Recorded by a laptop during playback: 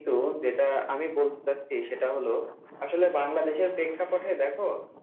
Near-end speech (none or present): none